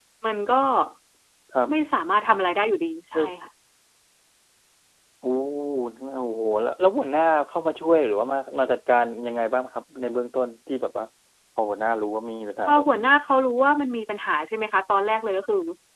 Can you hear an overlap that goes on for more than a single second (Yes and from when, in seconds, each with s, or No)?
No